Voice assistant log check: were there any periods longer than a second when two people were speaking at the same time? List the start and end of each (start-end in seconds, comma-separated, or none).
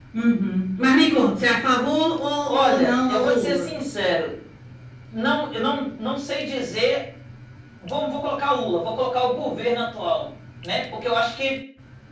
2.5-3.7